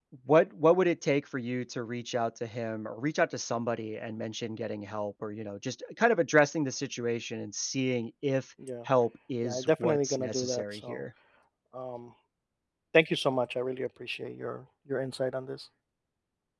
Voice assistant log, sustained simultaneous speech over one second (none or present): present